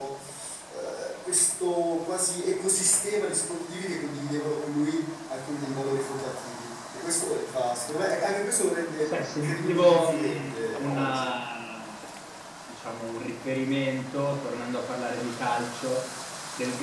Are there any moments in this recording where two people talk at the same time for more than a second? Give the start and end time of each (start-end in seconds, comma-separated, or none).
9.0-11.3